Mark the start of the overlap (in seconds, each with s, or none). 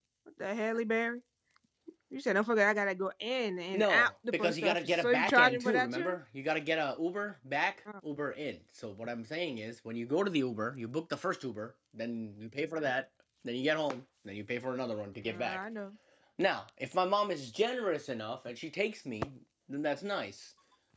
3.7 s